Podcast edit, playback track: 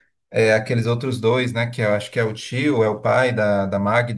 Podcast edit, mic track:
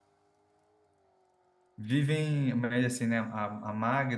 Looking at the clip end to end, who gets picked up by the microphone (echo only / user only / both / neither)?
user only